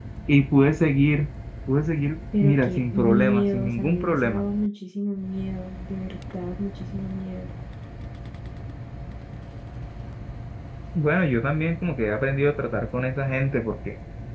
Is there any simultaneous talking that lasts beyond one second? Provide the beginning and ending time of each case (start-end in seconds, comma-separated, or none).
2.4-4.4